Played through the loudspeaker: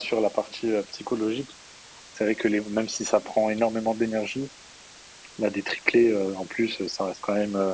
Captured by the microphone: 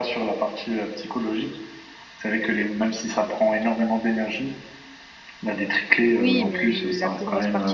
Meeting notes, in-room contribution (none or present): present